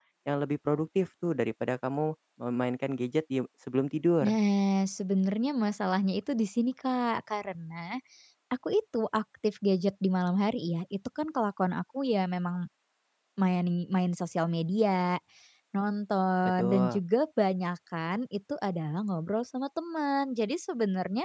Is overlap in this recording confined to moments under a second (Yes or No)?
Yes